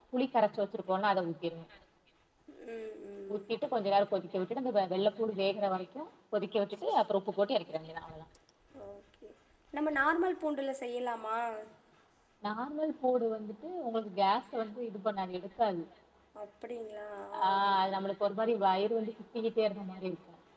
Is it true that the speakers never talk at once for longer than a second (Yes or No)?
Yes